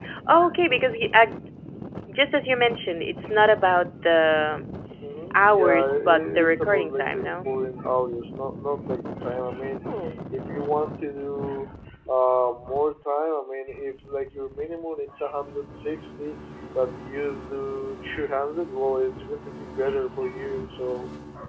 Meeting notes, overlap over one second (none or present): present